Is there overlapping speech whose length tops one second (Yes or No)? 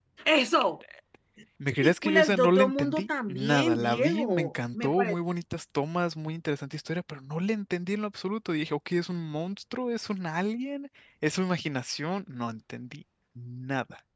Yes